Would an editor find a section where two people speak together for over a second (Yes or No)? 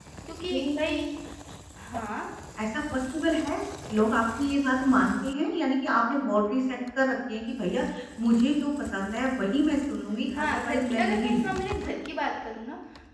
Yes